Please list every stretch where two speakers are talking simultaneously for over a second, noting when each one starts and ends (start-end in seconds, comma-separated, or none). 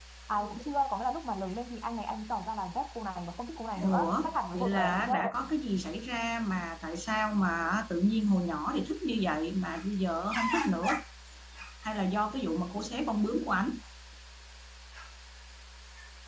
3.8-5.2